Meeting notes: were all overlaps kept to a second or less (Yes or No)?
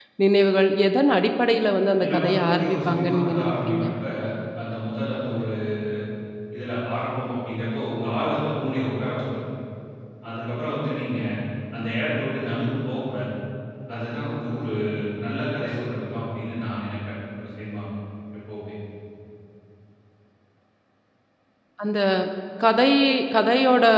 No